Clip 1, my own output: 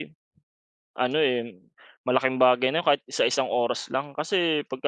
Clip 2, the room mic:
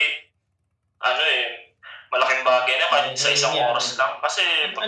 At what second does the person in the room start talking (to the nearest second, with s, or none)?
3 s